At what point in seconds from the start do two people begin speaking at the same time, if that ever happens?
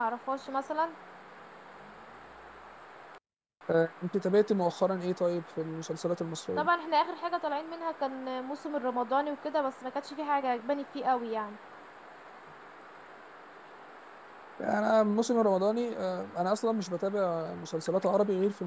none

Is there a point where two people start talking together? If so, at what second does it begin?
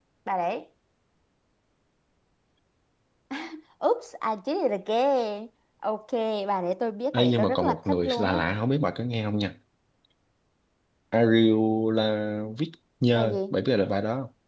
7.1 s

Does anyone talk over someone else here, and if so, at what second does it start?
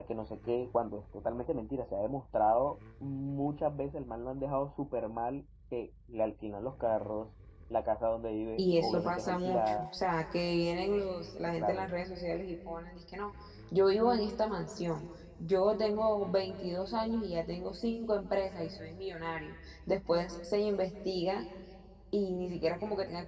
8.6 s

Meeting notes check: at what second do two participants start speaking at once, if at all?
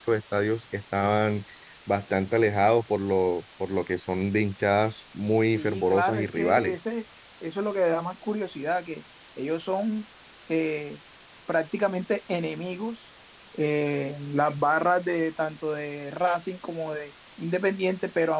5.5 s

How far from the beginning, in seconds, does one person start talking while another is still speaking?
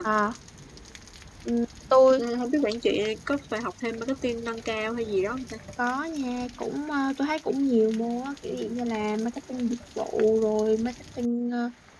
none

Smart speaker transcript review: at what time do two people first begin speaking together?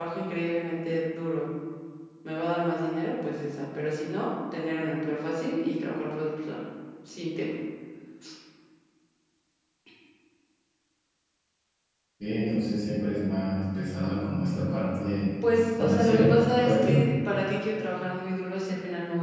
15.8 s

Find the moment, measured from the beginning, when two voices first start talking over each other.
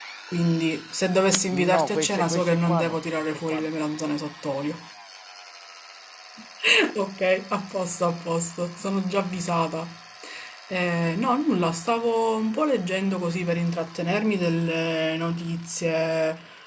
1.5 s

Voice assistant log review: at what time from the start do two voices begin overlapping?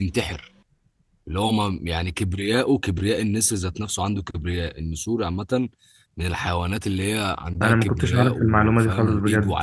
7.6 s

